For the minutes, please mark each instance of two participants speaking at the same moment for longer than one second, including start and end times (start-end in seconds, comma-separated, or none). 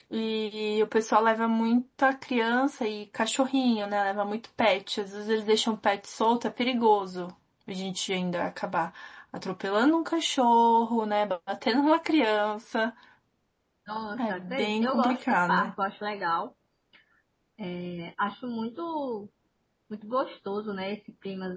14.2-15.7